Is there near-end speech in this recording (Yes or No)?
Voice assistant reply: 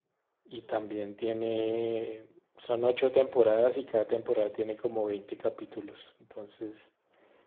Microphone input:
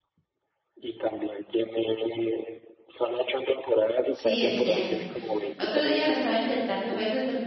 Yes